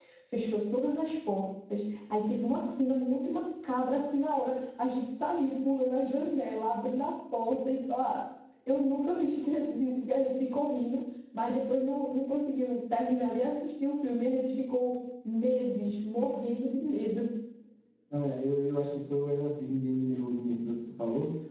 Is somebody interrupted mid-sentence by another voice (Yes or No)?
No